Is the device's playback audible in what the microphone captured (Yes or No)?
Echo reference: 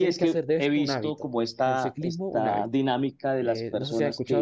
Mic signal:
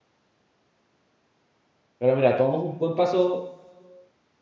No